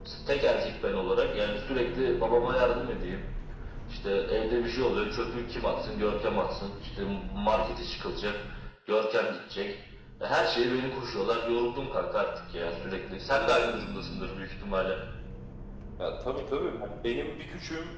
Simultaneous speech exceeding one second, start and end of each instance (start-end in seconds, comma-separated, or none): none